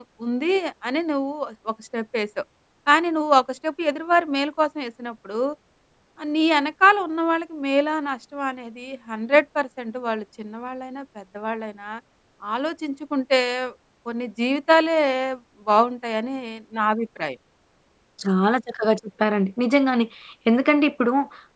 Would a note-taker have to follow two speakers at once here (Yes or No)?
No